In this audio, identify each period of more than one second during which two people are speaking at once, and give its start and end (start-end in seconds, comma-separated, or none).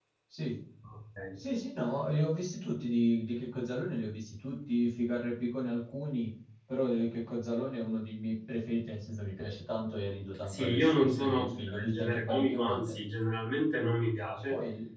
10.4-13.0